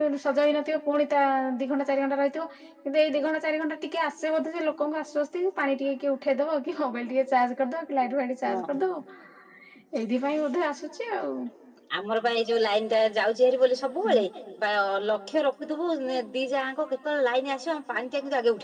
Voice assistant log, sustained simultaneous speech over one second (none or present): none